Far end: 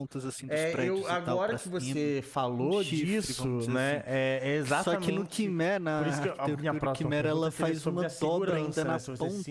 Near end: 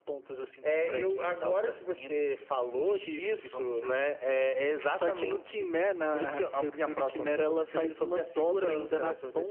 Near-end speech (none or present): none